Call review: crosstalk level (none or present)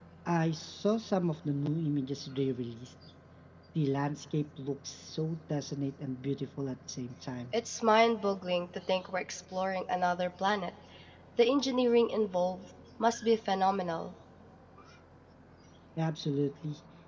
none